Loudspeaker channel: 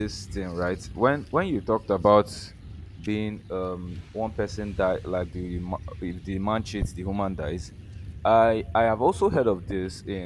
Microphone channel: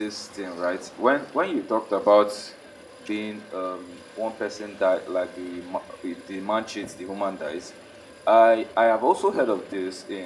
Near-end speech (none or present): none